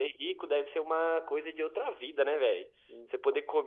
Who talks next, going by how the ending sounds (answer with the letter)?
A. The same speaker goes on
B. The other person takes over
A